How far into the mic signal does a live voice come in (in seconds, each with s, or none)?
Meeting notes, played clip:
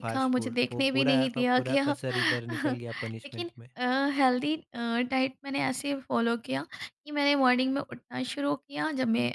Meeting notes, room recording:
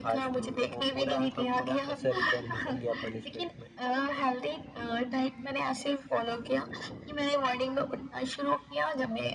none